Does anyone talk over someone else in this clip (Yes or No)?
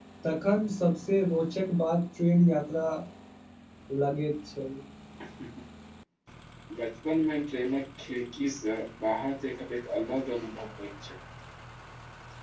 No